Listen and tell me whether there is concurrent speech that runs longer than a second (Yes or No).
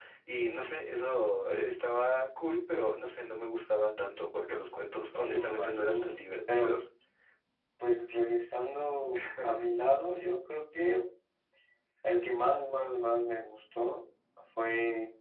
Yes